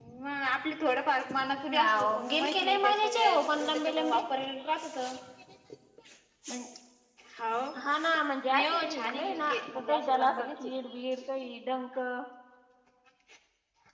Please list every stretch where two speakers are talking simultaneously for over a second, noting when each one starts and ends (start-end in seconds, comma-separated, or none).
1.7-4.1, 8.5-10.8